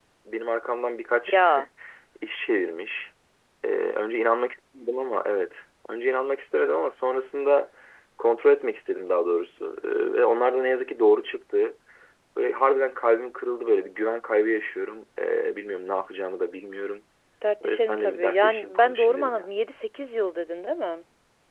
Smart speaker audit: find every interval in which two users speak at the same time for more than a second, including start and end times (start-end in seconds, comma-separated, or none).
17.6-19.5